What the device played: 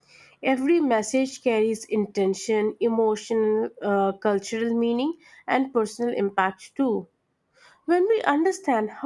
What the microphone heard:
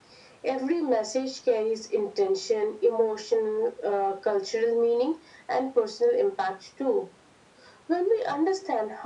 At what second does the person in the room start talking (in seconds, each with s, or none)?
none